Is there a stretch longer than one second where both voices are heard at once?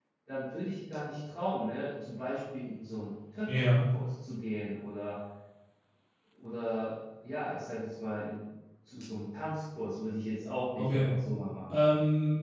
No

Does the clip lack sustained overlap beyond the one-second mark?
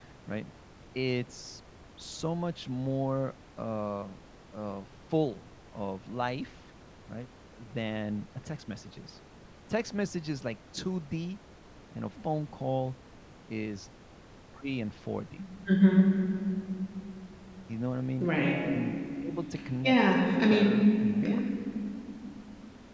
Yes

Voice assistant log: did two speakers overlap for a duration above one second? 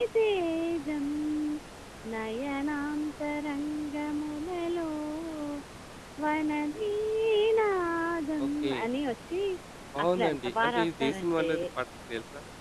Yes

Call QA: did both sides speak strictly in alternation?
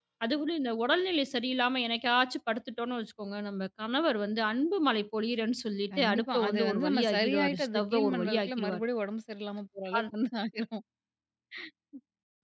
No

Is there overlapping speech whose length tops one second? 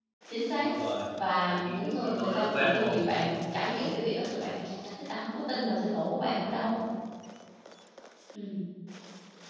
Yes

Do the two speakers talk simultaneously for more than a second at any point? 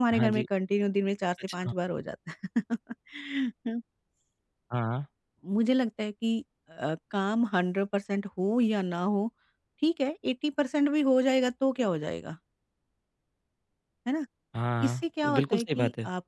Yes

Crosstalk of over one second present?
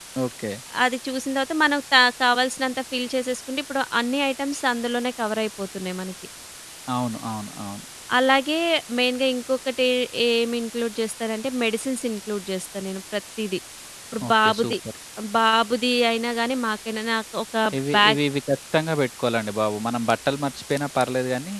No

